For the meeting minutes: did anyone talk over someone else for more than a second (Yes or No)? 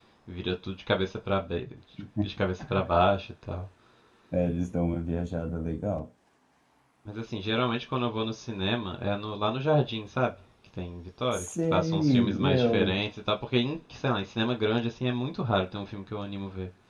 Yes